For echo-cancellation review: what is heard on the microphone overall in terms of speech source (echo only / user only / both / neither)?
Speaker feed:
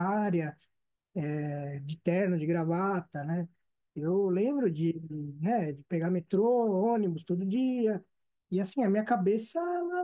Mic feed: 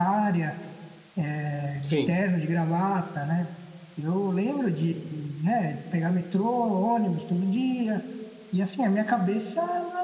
both